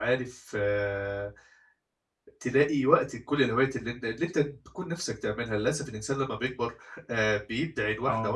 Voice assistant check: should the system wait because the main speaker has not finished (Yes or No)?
Yes